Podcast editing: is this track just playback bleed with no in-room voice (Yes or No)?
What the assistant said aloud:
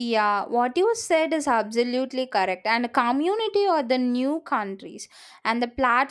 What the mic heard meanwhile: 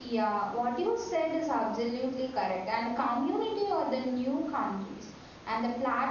Yes